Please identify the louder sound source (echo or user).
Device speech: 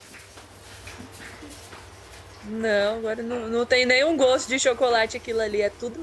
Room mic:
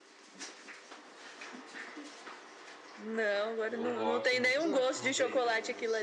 echo